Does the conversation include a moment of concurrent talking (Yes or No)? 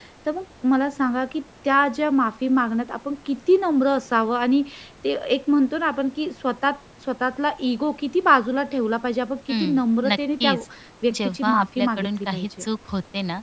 Yes